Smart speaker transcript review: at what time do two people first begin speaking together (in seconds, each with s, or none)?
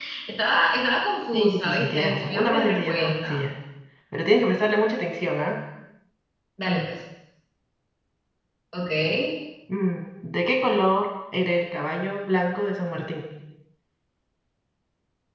1.3 s